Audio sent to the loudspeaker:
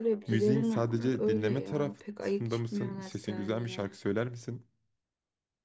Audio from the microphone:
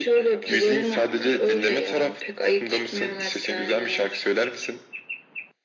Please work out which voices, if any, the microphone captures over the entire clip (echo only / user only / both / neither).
echo only